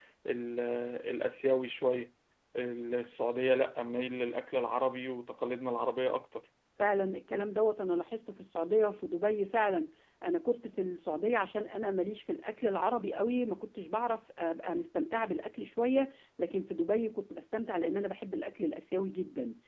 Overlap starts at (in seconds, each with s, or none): none